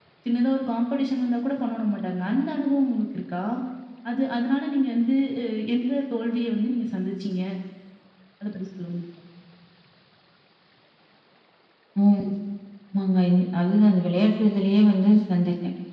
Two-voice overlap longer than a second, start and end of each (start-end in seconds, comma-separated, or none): none